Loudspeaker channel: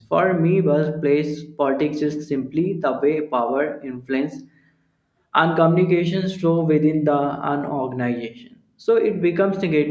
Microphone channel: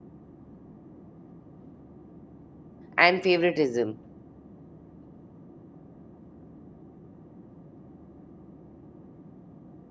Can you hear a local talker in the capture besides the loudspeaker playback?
Yes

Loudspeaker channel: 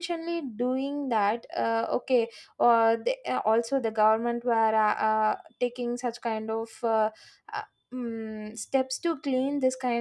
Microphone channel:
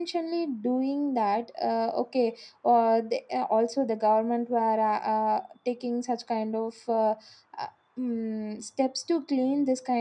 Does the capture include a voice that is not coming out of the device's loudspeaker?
No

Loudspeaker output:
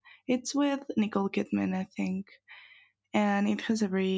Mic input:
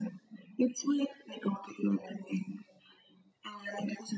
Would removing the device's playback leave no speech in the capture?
Yes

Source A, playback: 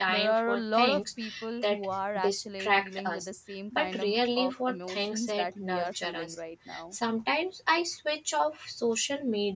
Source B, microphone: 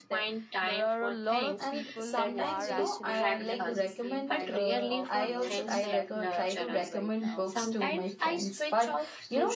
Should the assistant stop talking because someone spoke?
Yes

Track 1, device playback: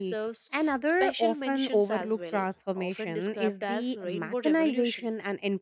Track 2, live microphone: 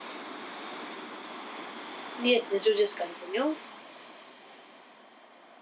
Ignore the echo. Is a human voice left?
Yes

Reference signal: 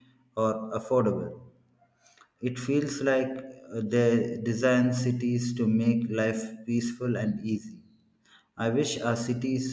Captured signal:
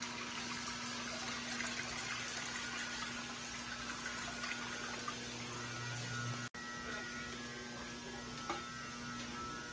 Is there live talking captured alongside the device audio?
No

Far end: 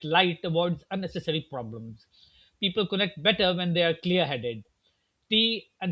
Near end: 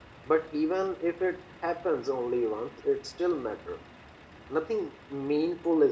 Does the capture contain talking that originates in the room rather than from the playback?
Yes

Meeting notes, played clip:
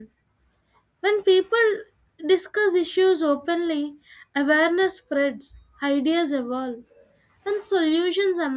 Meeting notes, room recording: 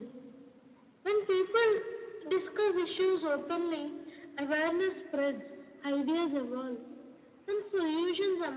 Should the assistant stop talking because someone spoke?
No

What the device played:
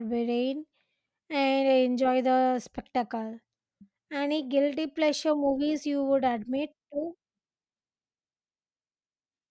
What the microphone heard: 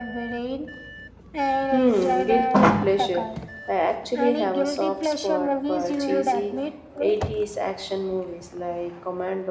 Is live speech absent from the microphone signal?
No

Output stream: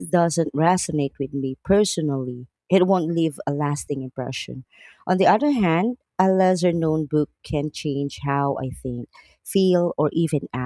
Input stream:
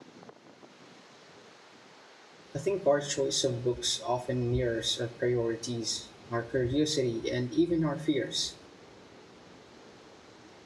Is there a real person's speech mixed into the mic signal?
Yes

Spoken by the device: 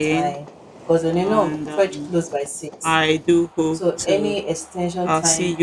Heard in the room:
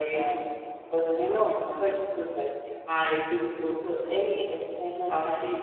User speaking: No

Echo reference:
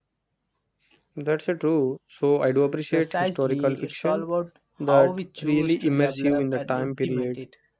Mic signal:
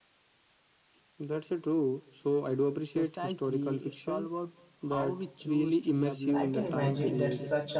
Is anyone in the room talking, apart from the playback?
Yes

